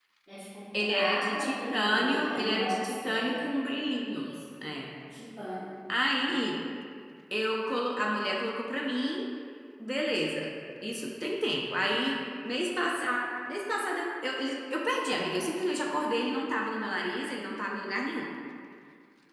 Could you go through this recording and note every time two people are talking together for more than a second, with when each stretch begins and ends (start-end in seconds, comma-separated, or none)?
0.9-3.5